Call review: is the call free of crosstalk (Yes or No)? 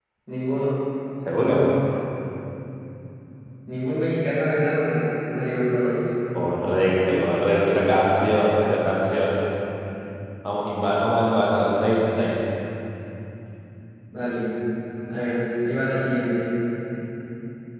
Yes